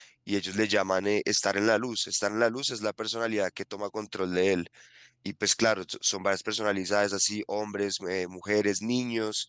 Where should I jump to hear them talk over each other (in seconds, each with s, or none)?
none